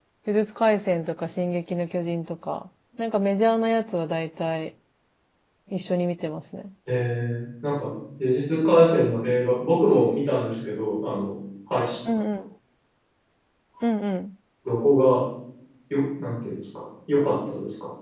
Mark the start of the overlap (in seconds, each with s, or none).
none